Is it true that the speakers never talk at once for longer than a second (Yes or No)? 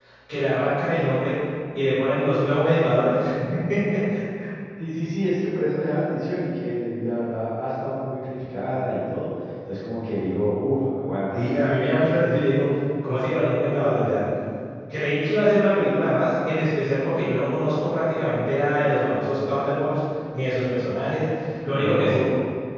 Yes